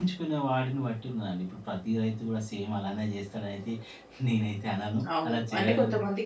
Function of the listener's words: taking over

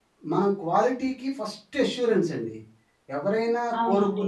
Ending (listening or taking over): listening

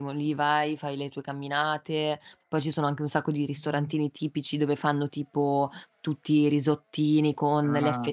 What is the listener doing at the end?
listening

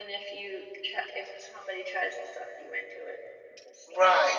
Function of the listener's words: taking over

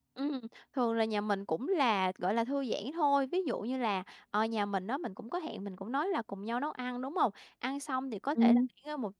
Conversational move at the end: listening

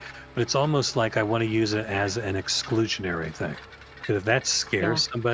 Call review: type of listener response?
listening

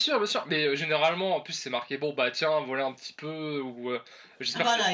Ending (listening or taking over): listening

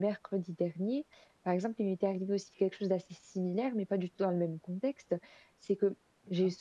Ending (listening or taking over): listening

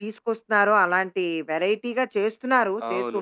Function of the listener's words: taking over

